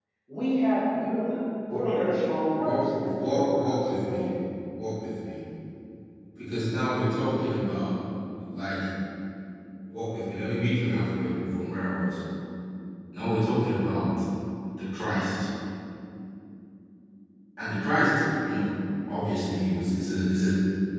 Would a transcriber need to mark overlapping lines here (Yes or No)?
Yes